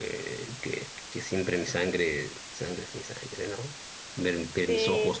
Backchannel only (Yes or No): Yes